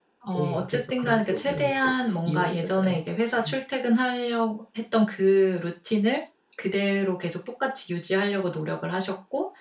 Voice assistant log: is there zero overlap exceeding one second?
No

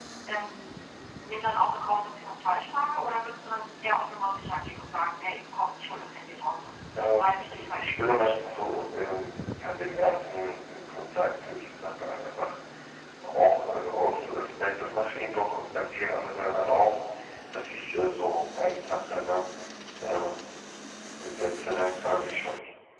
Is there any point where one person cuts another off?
Yes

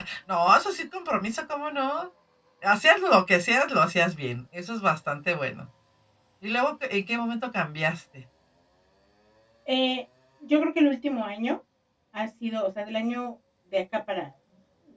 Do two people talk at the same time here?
No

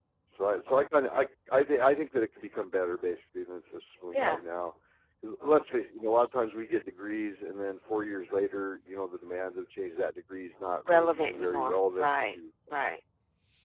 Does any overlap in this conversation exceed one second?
Yes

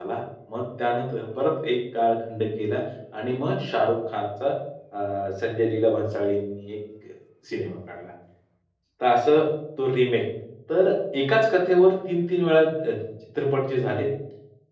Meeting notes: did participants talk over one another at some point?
No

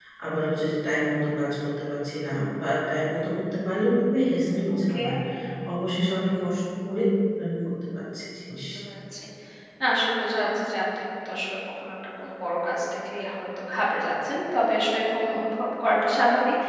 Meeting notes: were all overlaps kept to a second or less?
Yes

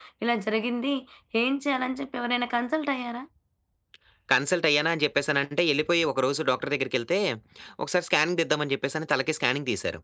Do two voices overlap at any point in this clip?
No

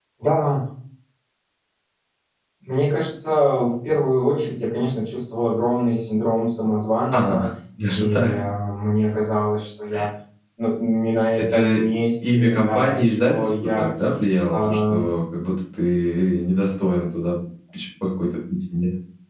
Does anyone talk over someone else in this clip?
Yes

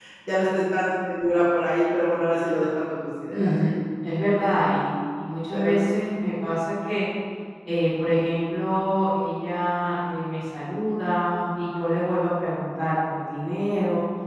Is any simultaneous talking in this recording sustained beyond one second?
No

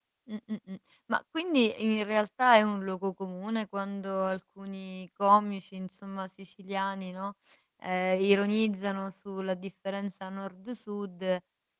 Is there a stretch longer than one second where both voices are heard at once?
No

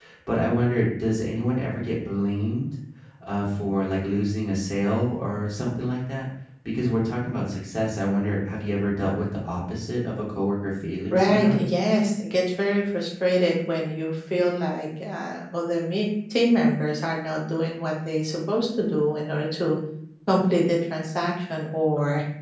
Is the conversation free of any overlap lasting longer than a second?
Yes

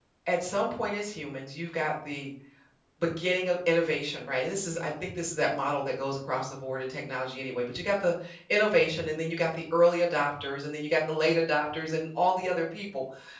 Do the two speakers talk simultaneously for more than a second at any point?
No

